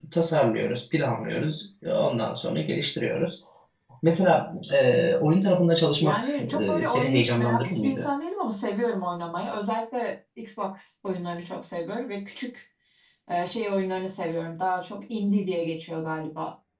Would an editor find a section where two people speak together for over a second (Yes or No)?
Yes